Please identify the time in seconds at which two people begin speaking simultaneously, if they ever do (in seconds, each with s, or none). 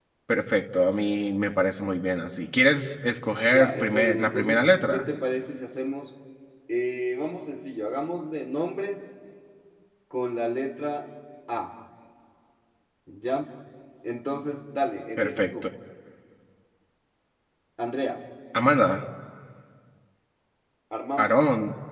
3.5 s